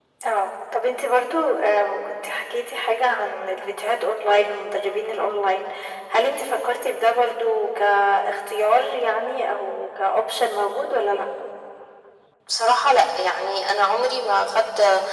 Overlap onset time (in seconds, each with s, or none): none